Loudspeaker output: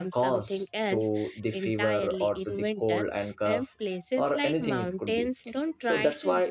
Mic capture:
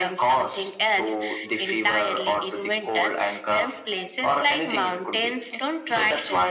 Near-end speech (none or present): none